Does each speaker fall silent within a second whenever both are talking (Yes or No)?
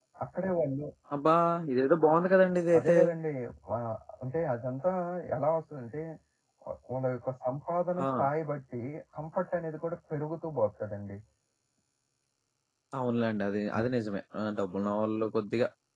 Yes